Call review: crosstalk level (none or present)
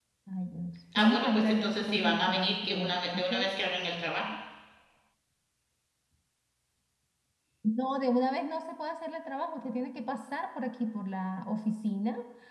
present